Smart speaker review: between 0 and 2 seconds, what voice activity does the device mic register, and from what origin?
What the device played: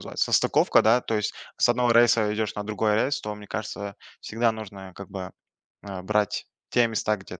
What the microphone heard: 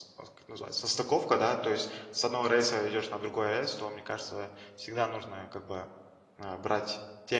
echo only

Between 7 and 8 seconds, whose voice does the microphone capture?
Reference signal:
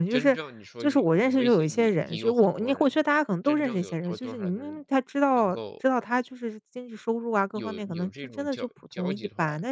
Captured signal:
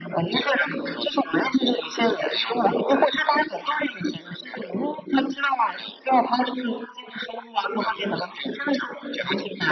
echo only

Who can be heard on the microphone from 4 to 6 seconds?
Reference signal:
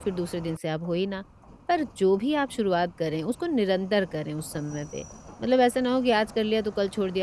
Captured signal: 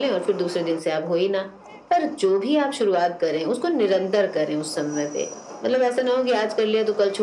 echo only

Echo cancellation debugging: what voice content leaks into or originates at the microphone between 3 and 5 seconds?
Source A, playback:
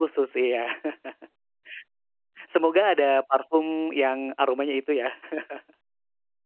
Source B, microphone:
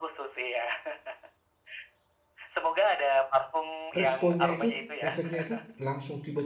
both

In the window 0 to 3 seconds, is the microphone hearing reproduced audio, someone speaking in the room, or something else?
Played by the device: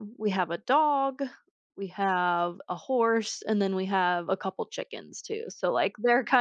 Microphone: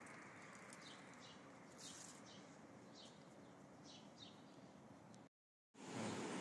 neither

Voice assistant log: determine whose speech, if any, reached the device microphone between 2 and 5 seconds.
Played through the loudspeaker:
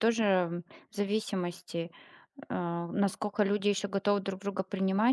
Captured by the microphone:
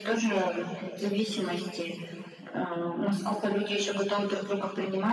echo only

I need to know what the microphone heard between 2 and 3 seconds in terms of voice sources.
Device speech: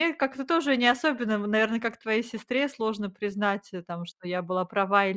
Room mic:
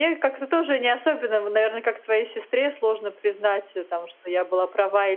echo only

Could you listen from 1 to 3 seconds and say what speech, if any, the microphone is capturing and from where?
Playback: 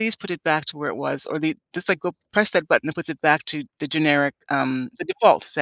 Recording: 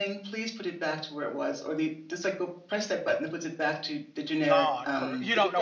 echo only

